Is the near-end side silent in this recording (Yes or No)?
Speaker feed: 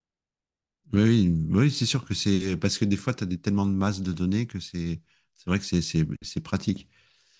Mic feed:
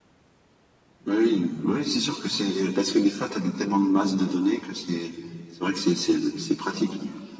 Yes